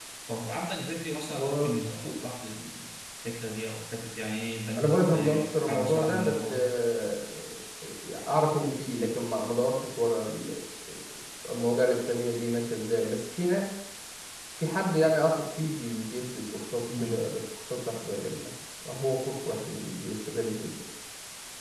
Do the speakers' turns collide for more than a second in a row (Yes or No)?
Yes